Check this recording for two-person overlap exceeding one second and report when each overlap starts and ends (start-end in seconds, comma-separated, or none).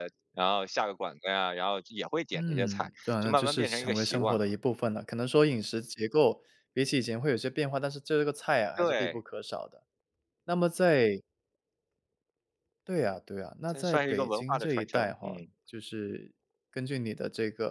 2.3-4.5, 13.7-15.4